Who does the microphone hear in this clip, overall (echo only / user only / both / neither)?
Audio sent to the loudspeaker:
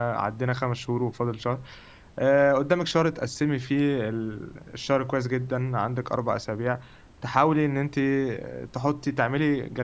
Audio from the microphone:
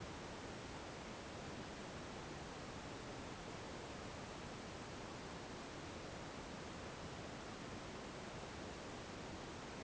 neither